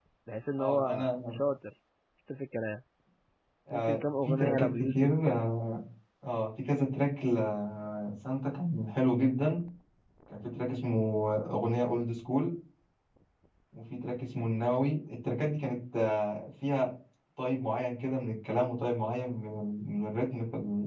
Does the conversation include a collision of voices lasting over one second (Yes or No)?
Yes